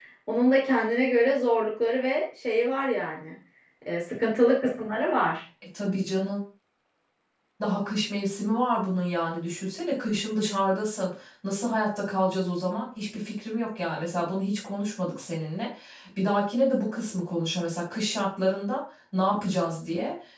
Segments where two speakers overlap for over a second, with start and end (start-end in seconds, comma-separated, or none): none